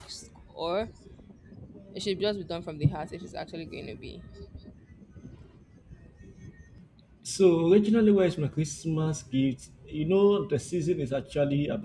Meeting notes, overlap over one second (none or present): none